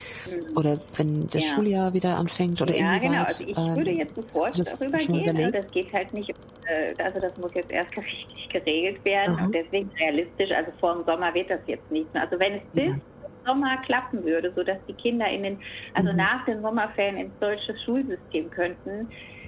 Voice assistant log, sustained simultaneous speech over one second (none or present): present